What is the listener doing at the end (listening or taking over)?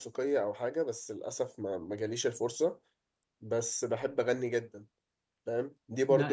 listening